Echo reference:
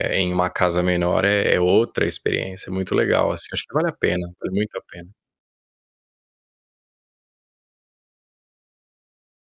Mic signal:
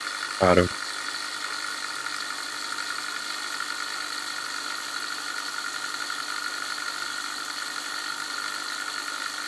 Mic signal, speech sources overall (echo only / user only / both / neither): user only